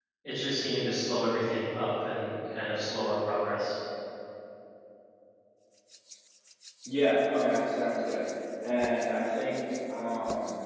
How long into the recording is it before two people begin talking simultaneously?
none

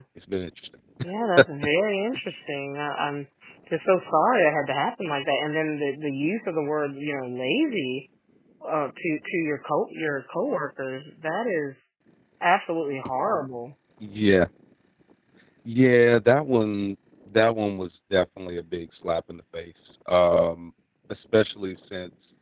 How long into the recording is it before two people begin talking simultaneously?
none

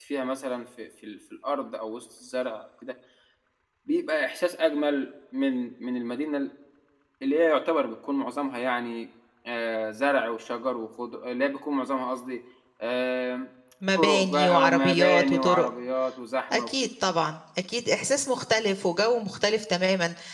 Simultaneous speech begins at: 14 s

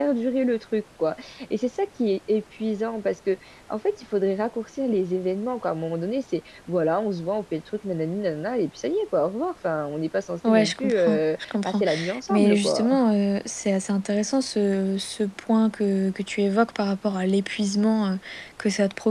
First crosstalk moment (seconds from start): 10 s

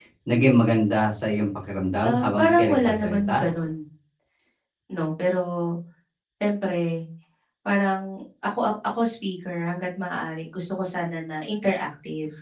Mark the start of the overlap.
2 s

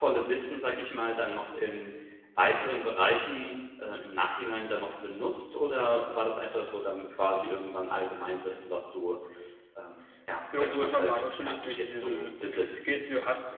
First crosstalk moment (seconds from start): 11 s

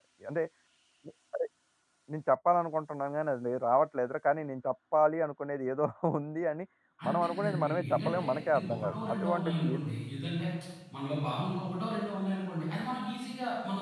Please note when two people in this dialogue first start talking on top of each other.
7 s

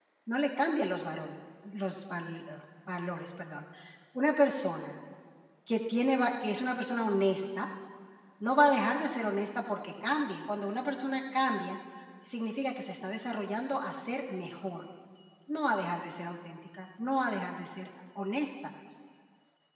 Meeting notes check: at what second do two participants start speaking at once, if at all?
none

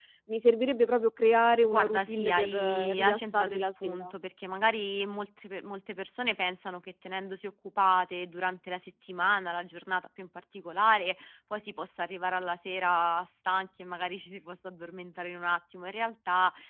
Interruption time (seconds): 2 s

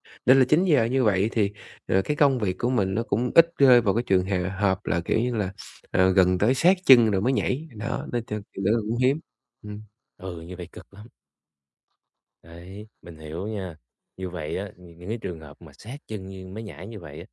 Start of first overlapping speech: none

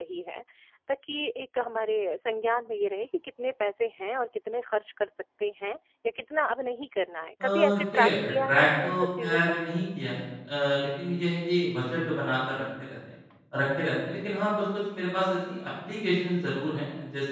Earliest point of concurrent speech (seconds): 7 s

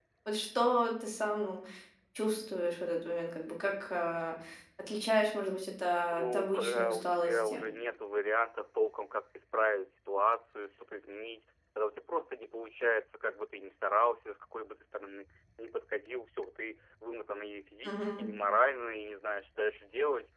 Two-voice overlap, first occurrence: 6 s

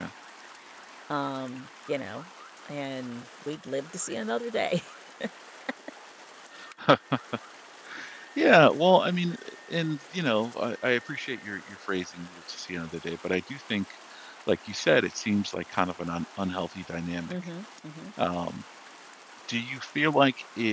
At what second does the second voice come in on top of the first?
none

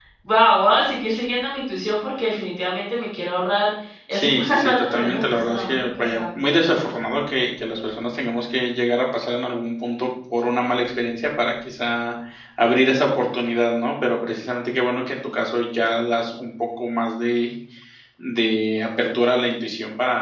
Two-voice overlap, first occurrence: 4 s

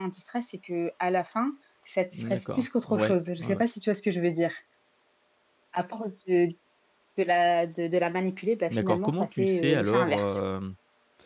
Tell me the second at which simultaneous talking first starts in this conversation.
2 s

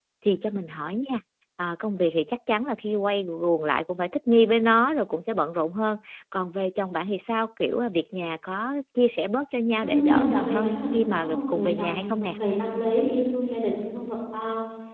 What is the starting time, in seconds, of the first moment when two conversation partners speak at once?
10 s

